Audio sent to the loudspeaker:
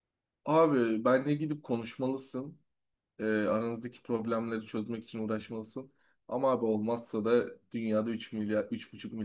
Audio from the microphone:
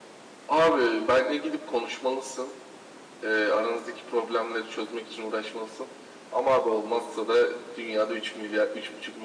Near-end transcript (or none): none